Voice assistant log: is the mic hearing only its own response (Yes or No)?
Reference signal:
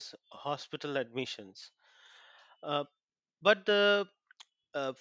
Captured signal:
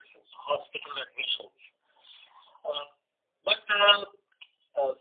Yes